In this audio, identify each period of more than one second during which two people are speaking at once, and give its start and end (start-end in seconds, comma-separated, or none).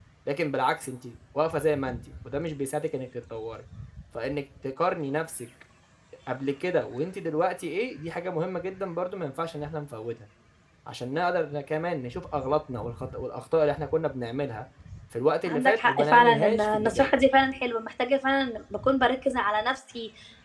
15.5-17.1